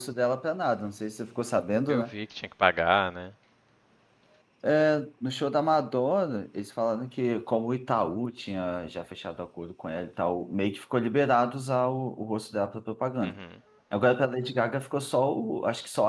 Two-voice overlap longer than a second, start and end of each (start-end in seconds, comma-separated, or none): none